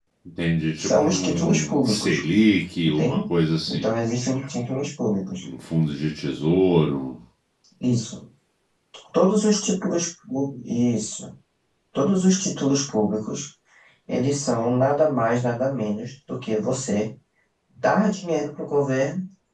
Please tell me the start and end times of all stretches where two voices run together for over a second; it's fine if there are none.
0.8-2.1

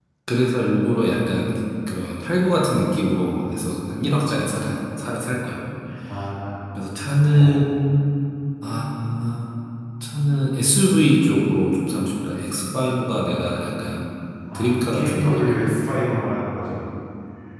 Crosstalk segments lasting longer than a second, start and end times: 14.5-15.8

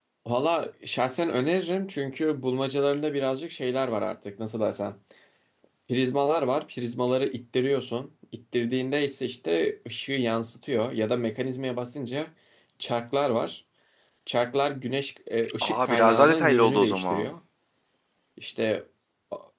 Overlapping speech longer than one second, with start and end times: 15.6-17.3

